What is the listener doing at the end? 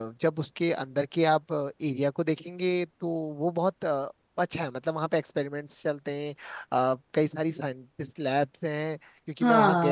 taking over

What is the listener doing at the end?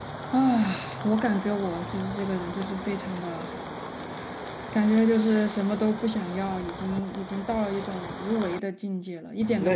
taking over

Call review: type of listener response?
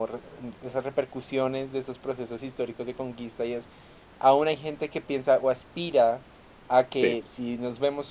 listening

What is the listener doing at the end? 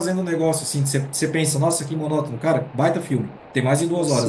taking over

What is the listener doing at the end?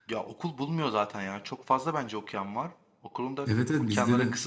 taking over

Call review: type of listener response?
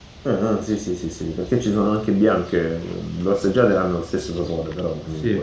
taking over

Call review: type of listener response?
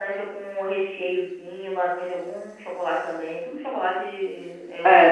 taking over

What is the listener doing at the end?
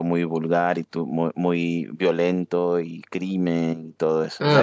taking over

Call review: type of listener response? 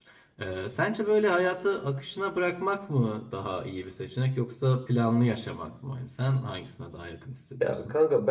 taking over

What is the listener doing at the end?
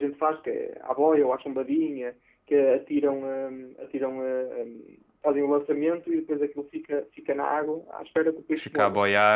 taking over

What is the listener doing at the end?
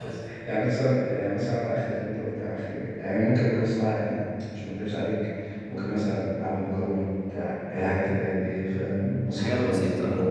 listening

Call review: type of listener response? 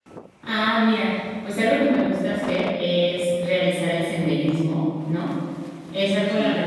listening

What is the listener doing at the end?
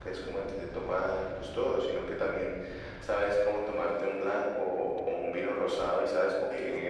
listening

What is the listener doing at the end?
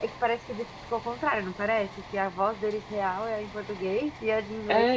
taking over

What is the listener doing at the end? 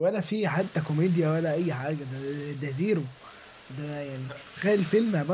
listening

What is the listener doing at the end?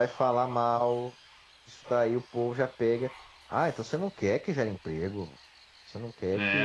taking over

